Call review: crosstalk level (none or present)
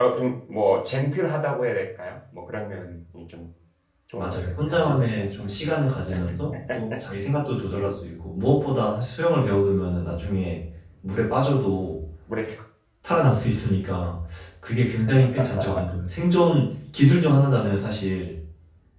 present